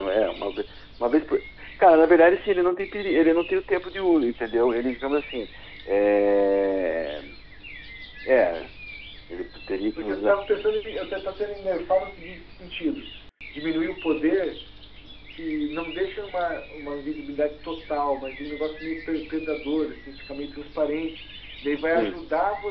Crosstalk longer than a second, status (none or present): none